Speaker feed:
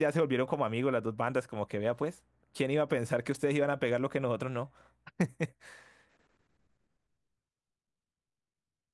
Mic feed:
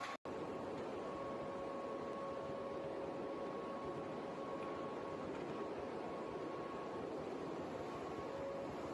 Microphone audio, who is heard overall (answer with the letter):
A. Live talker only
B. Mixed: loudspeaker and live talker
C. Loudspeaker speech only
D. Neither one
D